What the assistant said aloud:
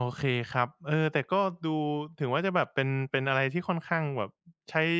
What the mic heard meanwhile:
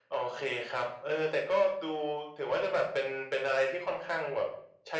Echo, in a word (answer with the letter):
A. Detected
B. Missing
A